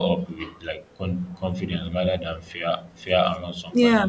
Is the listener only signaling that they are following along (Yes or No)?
No